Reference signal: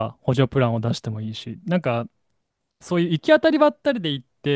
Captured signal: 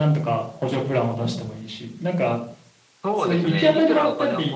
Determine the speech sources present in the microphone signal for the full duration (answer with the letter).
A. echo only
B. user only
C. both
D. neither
C